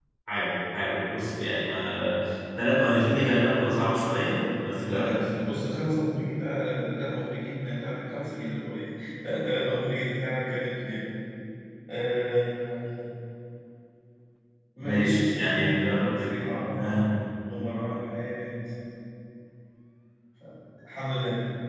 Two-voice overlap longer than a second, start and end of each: 14.8-16.3

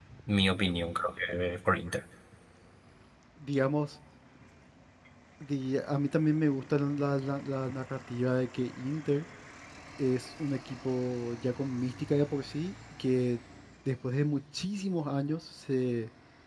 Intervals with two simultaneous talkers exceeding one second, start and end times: none

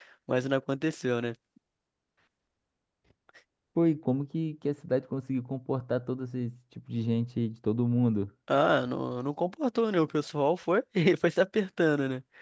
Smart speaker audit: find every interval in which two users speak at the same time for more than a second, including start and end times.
none

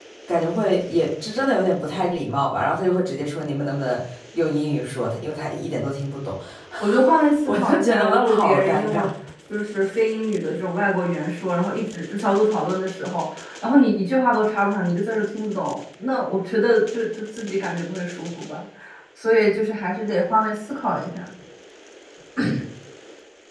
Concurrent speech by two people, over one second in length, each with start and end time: 7.5-9.1

